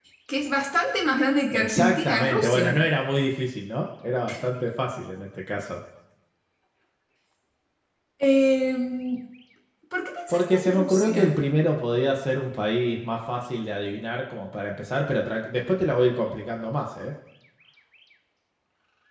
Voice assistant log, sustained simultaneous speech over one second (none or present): present